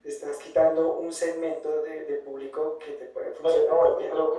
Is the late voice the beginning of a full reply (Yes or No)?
Yes